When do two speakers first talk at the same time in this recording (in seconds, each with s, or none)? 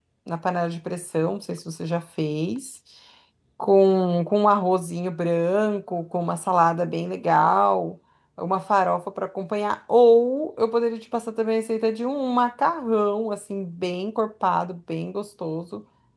none